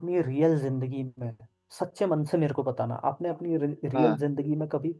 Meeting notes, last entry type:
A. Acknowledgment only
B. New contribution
A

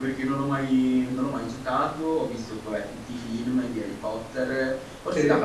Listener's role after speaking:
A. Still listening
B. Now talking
A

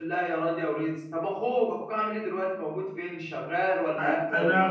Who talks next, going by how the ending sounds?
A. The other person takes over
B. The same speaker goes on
A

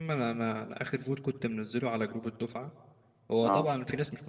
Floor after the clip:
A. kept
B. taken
A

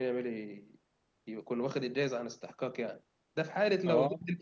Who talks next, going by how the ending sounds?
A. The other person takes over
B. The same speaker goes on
B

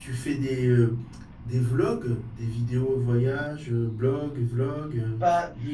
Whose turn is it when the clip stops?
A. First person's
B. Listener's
B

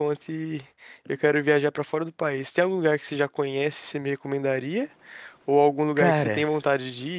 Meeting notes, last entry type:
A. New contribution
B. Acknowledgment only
B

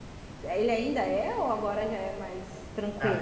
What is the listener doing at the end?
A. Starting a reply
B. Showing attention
A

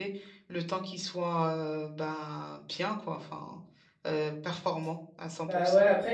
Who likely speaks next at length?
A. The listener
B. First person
A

